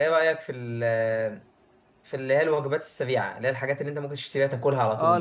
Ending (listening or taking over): taking over